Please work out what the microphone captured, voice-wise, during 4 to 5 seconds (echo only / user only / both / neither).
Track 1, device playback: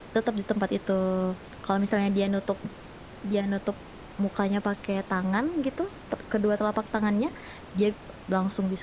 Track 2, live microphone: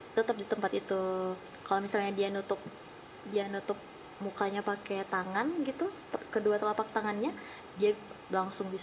echo only